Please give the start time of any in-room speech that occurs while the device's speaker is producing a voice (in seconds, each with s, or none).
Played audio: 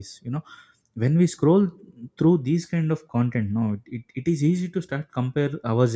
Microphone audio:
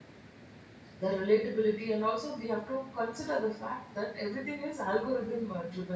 1.0 s